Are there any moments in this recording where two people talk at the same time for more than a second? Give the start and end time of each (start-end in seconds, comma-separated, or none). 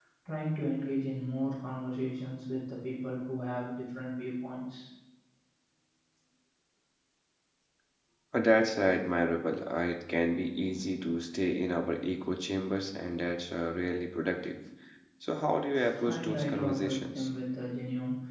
16.0-17.3